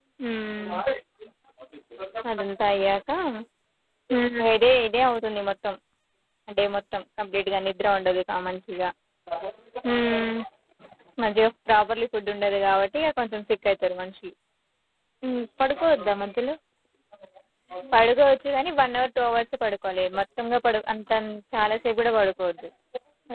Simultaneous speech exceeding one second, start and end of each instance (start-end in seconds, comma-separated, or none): none